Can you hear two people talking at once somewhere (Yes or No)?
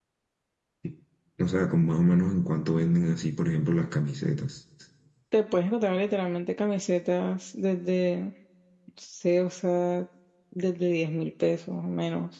No